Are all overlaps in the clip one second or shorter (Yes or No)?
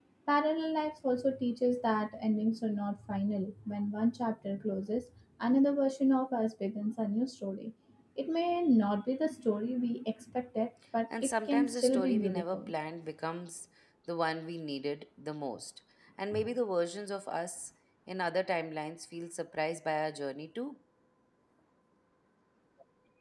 No